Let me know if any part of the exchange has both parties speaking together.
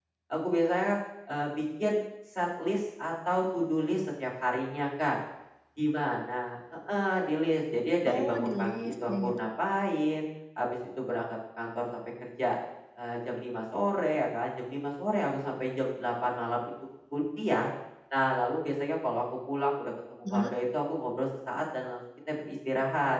Yes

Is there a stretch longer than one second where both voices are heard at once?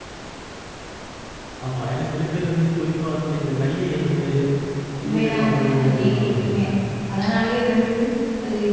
Yes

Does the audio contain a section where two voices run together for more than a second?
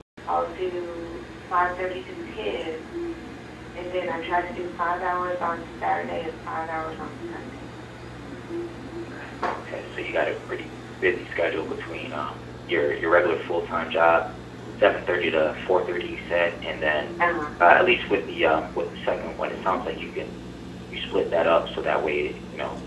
No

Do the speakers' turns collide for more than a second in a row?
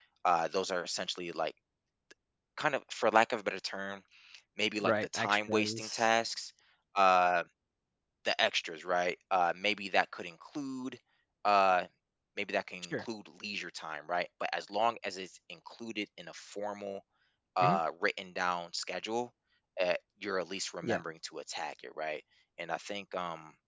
Yes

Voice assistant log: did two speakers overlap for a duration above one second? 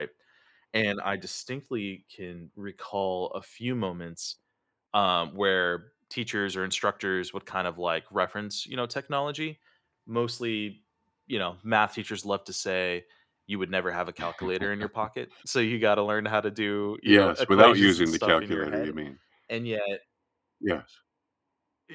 Yes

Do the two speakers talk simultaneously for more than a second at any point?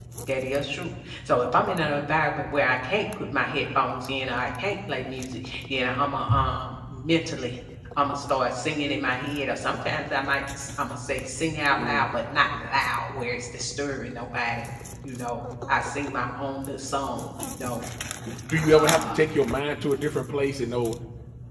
No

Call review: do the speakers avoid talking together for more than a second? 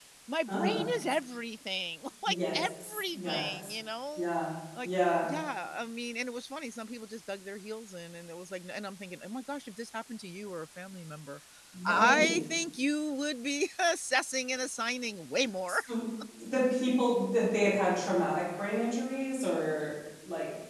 No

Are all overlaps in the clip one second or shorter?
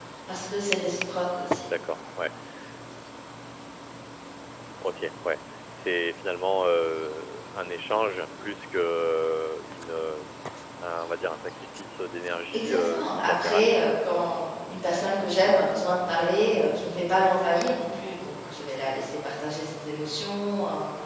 No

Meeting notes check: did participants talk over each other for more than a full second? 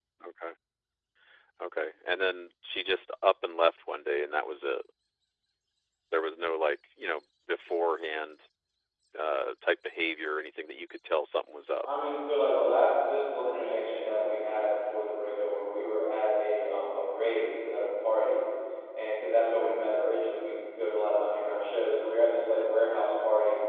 No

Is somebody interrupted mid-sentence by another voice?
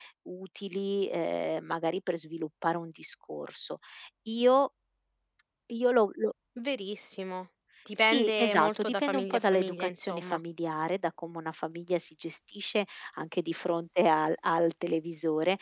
Yes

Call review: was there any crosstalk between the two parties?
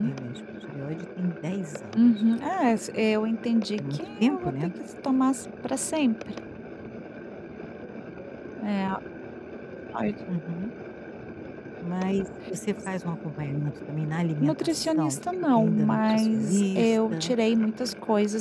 Yes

